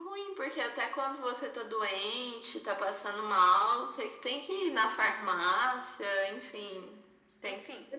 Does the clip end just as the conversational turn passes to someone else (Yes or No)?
Yes